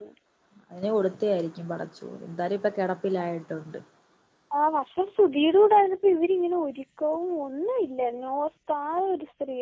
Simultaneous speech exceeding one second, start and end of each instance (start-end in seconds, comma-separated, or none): none